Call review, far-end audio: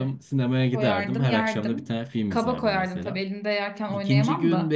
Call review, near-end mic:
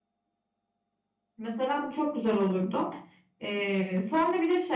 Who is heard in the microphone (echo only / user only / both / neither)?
user only